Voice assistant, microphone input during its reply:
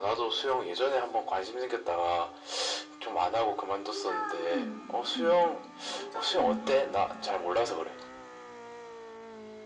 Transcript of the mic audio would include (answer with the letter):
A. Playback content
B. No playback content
A